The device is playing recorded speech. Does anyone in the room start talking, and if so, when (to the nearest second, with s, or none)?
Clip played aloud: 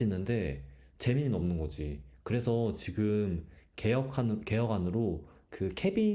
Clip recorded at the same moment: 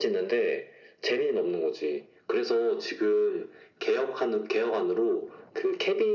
none